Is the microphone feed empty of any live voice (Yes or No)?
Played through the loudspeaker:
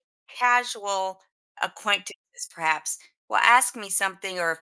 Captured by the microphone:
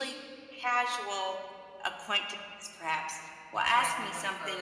No